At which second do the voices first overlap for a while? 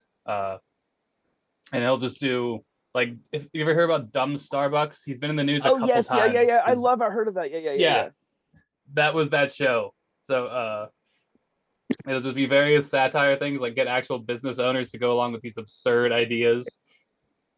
5.6 s

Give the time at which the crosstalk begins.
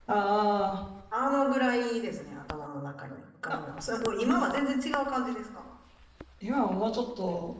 none

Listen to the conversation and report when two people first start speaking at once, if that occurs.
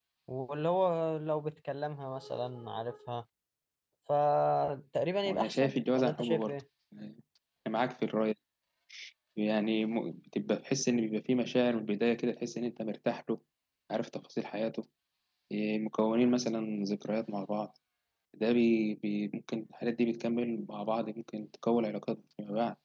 5.2 s

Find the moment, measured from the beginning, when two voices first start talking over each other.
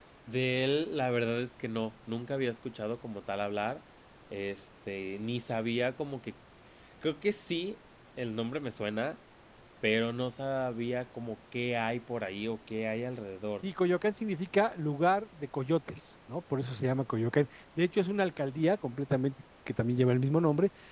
none

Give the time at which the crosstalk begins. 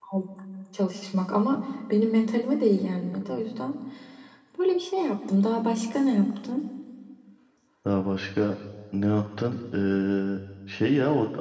none

